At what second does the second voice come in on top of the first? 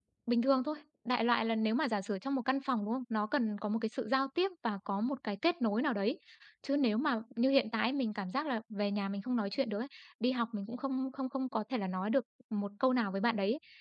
none

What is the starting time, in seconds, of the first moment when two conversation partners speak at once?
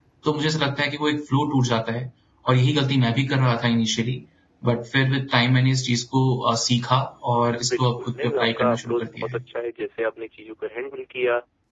7.7 s

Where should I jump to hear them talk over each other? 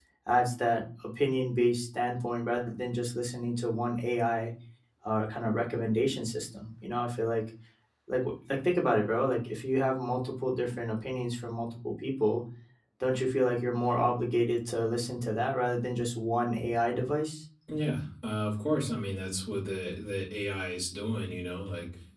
none

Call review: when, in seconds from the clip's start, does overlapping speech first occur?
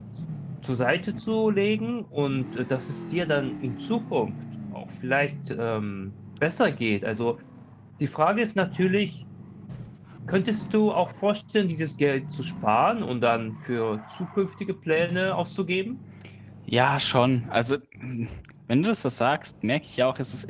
none

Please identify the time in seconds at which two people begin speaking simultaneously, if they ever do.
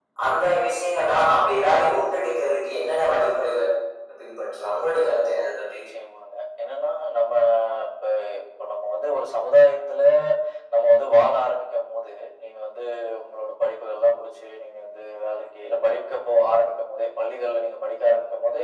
none

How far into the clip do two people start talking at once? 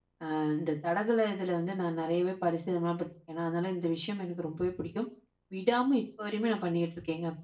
none

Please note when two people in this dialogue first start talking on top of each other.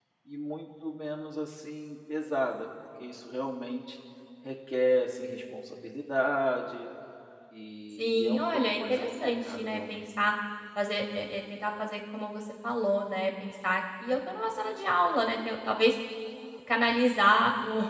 8.0 s

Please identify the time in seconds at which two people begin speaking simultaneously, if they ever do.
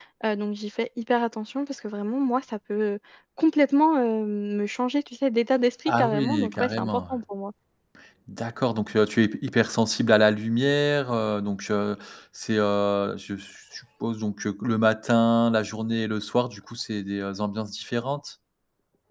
5.9 s

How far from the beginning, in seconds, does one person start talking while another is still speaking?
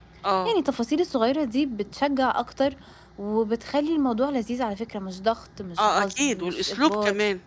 5.8 s

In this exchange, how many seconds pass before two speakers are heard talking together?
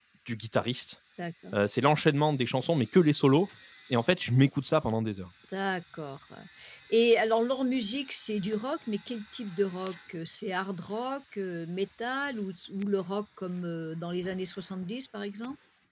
none

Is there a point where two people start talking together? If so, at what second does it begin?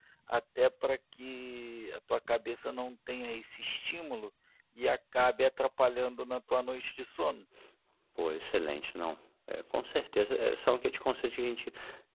none

